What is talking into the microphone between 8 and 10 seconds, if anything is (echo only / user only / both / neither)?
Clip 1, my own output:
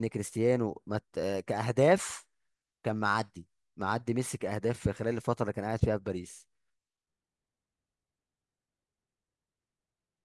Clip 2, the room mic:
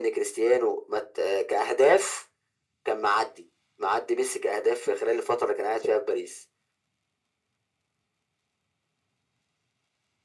neither